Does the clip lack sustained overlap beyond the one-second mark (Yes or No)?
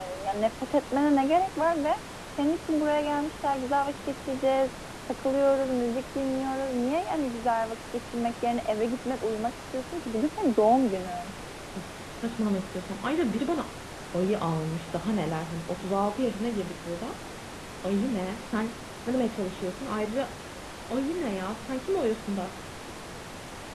Yes